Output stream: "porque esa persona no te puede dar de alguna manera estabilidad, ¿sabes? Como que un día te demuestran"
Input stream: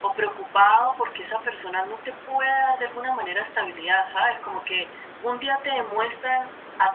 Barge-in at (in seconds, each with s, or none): none